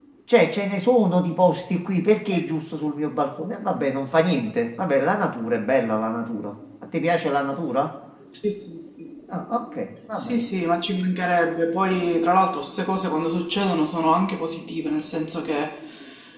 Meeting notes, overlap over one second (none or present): none